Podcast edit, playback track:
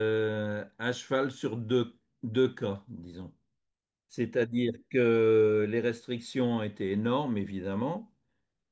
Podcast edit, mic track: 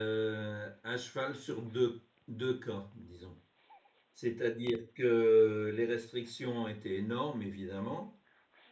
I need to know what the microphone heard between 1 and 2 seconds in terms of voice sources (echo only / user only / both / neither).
echo only